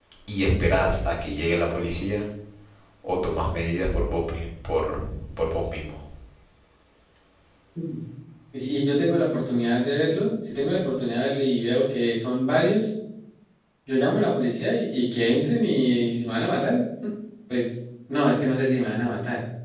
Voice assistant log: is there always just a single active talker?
Yes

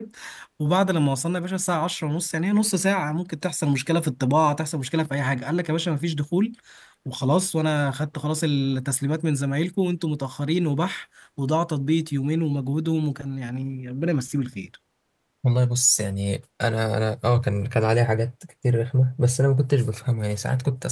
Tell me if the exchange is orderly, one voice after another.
Yes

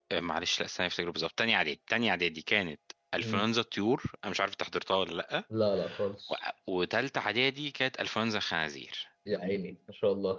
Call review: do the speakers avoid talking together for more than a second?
Yes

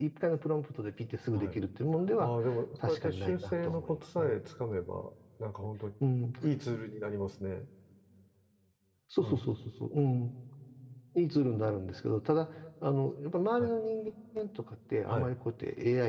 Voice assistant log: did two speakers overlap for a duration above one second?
Yes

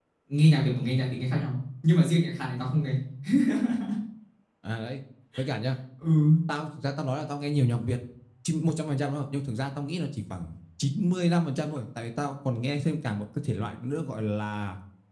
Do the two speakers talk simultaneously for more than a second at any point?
No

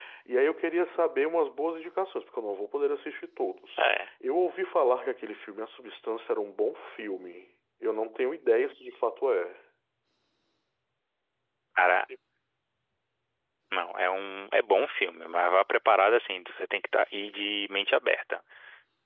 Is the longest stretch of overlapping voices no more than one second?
Yes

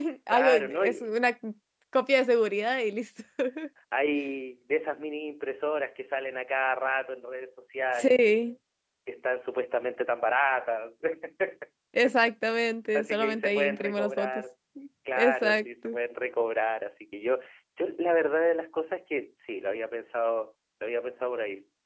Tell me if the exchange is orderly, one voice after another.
No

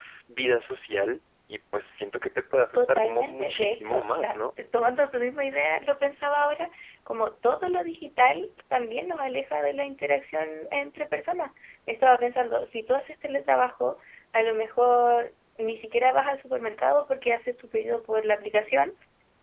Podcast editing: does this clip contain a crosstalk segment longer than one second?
Yes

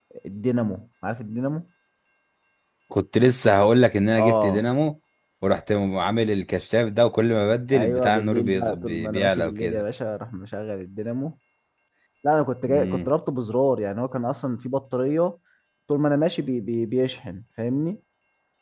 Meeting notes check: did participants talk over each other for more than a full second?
Yes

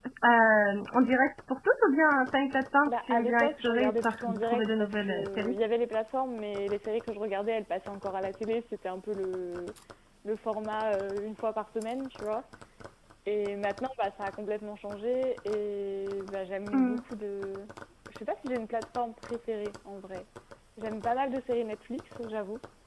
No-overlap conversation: No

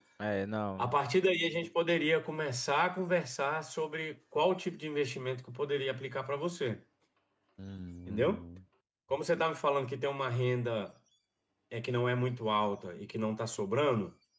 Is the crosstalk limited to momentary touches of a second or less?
Yes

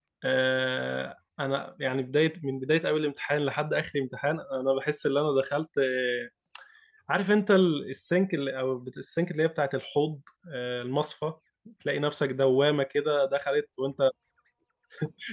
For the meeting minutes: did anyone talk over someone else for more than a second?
No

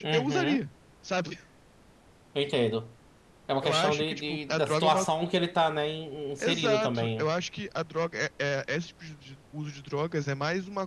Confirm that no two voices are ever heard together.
No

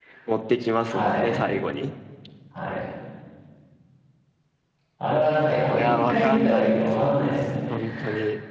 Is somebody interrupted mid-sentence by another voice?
Yes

